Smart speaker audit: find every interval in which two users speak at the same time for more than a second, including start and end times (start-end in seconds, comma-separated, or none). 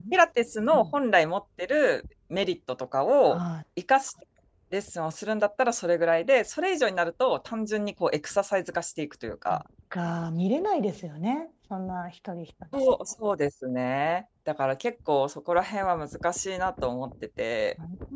none